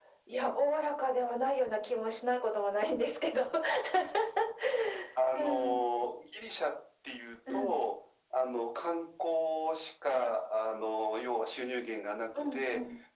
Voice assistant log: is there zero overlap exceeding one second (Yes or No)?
Yes